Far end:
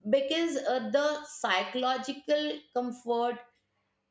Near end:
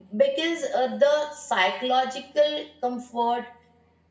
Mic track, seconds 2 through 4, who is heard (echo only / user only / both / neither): echo only